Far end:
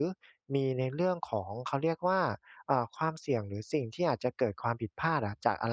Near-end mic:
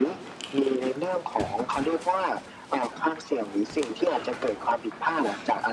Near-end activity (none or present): none